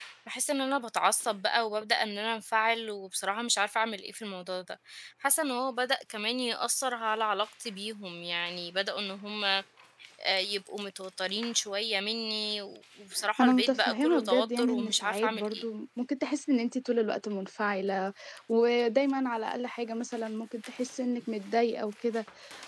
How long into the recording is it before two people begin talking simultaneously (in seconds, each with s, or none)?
13.4 s